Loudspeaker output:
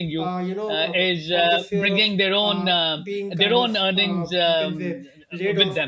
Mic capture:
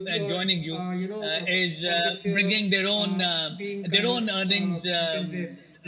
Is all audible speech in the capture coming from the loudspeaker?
Yes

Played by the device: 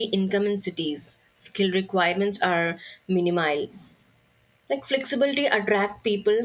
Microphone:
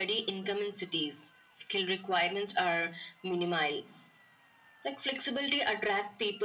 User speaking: No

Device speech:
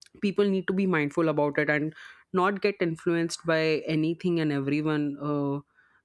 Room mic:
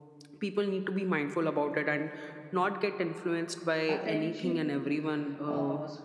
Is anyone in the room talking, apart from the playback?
Yes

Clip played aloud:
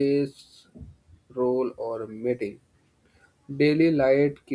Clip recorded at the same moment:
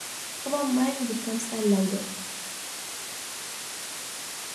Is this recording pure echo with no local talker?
No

